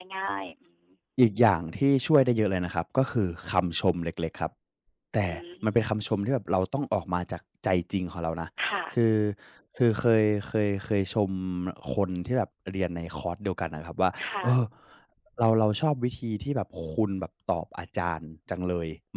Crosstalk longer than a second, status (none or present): none